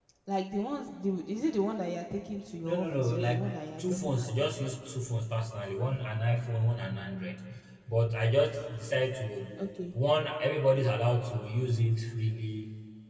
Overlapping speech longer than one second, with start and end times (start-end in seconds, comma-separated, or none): 2.6-4.5